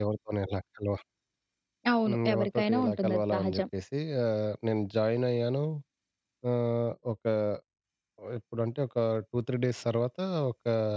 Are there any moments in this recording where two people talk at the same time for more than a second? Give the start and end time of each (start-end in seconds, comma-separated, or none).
2.0-3.6